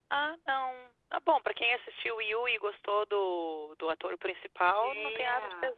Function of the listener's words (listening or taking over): taking over